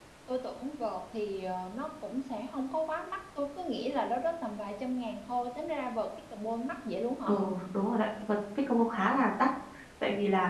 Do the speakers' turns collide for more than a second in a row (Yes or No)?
No